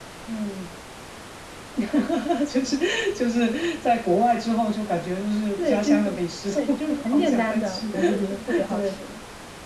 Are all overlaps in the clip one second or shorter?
No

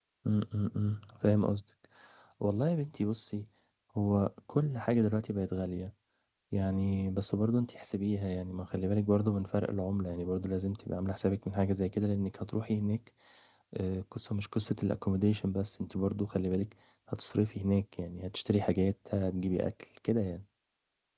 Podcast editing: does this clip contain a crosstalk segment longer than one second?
No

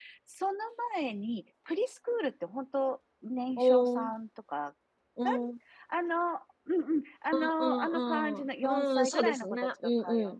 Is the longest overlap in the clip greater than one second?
Yes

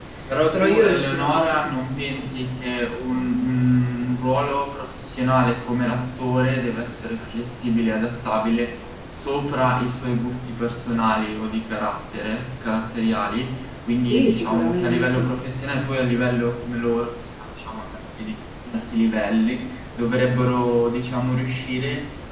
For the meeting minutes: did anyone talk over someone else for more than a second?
Yes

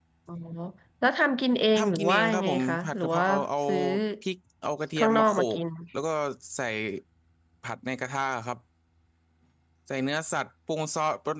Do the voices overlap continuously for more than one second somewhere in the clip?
Yes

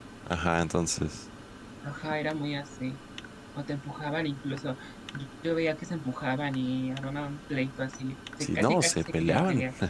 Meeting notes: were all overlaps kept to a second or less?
No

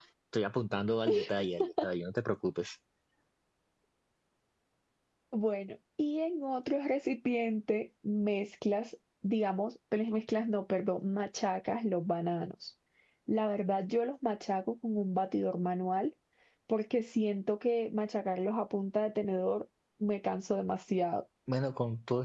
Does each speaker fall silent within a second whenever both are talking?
Yes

